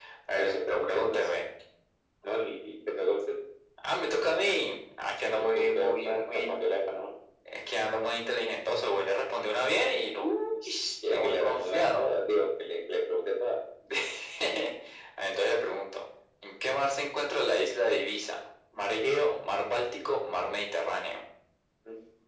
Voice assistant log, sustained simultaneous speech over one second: present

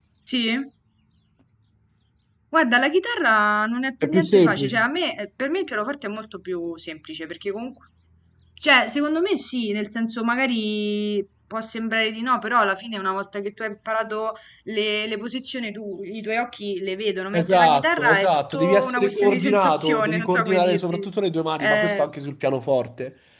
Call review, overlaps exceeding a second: present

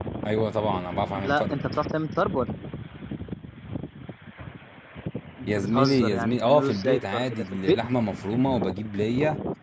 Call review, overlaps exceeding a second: present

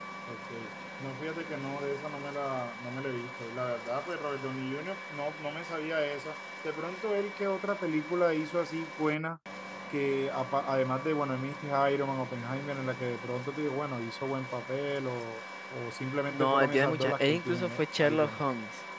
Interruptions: present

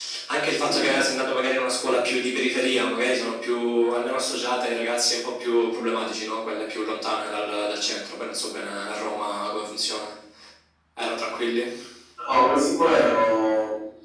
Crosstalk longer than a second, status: none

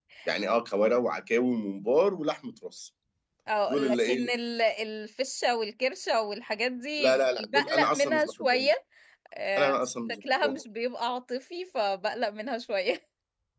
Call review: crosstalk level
present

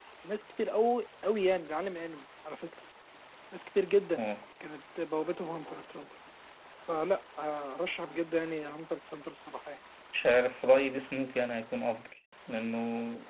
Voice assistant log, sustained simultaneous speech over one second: none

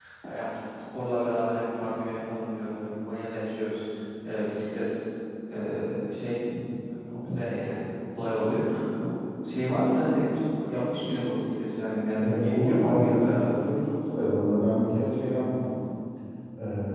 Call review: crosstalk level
present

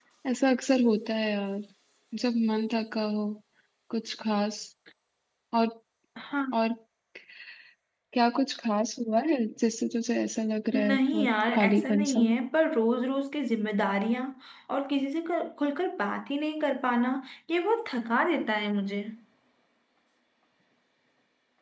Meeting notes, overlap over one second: present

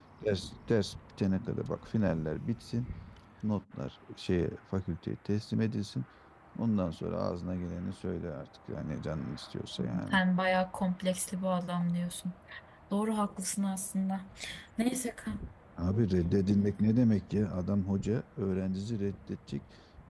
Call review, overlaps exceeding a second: none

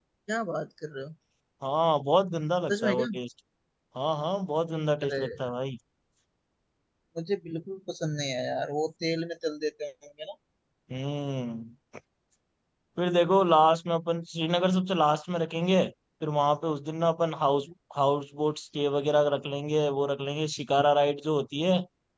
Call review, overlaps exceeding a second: none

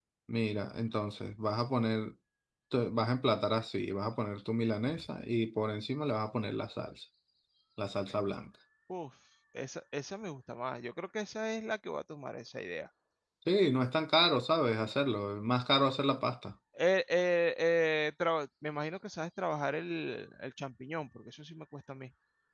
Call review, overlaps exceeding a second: none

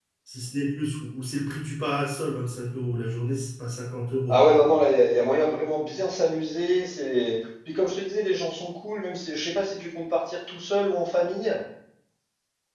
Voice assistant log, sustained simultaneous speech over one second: none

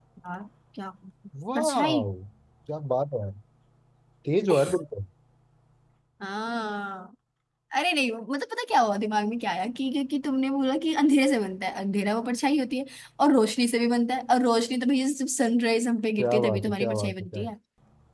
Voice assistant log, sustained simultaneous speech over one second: present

